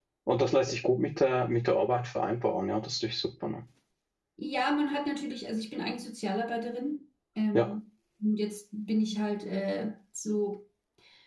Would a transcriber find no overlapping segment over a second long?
Yes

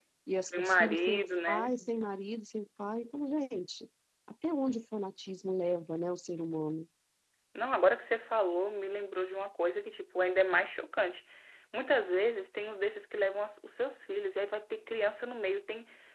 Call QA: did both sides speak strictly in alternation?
No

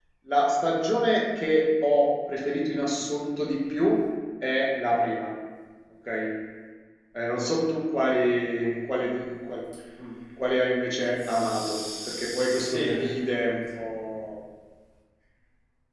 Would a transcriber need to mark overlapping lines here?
Yes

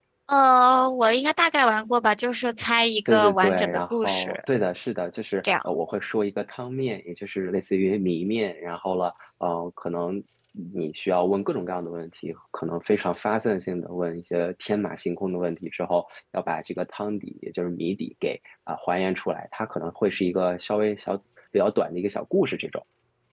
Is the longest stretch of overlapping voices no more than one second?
No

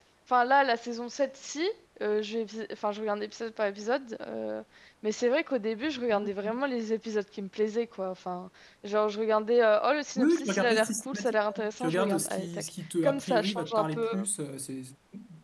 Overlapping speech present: Yes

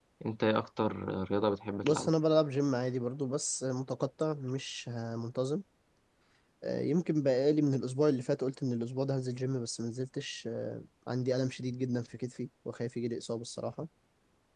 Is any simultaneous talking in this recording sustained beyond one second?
No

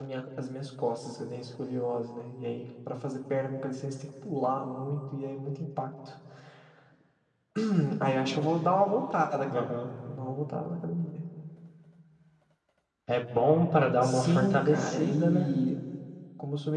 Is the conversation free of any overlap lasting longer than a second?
No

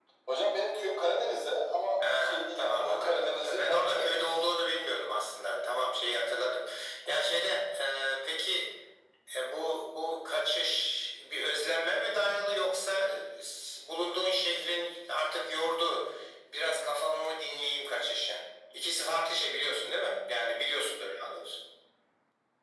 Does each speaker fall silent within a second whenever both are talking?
No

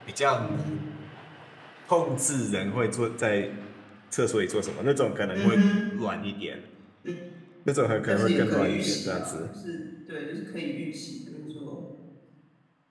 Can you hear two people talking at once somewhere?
Yes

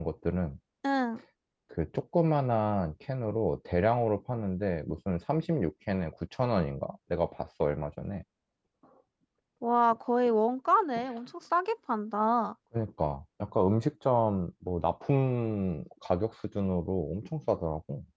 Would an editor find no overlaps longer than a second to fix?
Yes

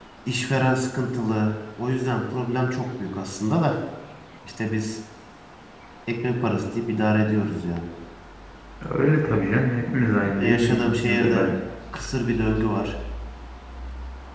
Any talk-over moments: Yes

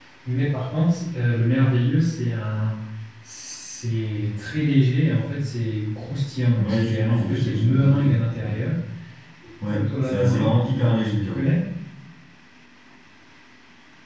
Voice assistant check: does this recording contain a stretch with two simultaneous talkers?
Yes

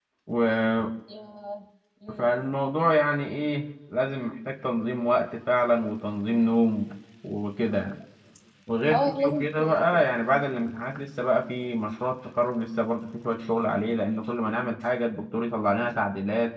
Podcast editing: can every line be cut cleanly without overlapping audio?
No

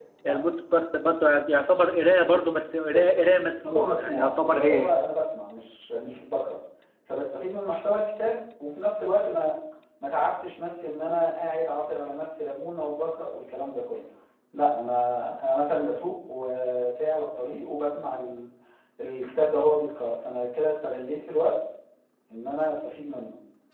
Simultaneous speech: Yes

